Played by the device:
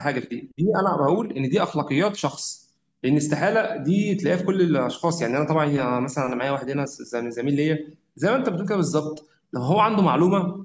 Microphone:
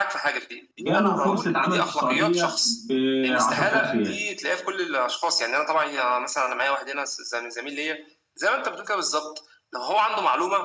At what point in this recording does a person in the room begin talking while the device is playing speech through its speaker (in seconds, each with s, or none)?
0.9 s